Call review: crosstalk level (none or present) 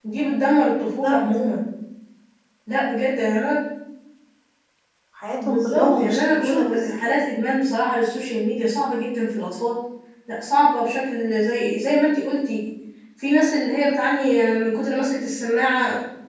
present